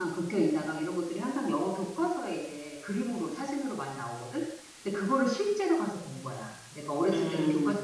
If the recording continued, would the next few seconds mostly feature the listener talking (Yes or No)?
No